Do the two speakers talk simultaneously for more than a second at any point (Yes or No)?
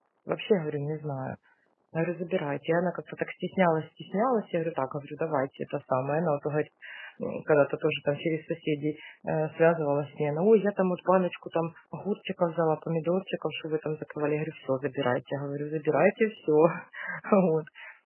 No